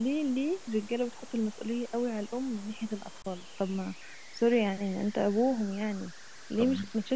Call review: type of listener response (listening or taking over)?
listening